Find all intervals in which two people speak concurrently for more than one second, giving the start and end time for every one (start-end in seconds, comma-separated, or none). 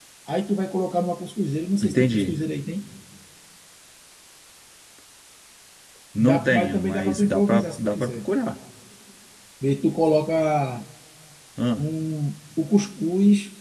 6.2-8.2